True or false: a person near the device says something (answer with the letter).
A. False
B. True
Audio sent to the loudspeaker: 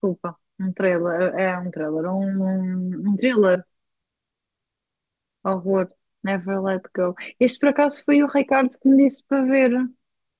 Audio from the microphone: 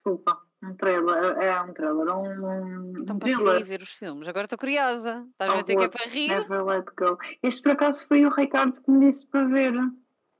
B